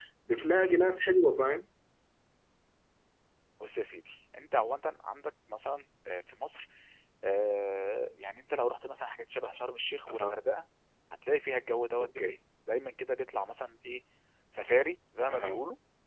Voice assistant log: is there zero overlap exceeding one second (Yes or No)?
Yes